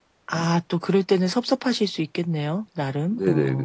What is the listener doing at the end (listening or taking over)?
taking over